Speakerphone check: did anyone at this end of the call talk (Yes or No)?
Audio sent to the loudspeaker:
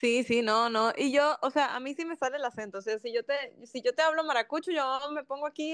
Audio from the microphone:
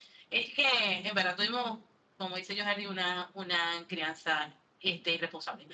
Yes